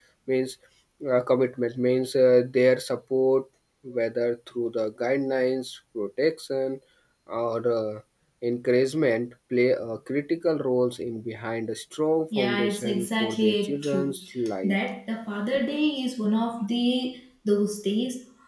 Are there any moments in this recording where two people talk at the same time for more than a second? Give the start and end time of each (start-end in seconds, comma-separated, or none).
12.4-14.1